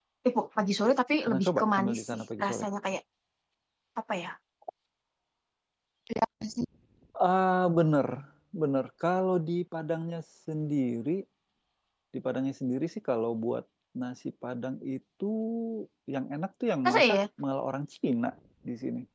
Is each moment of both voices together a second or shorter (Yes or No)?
No